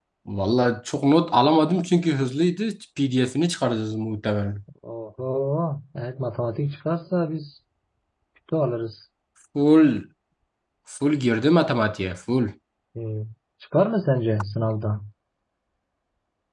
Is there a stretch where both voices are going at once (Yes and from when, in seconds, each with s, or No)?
No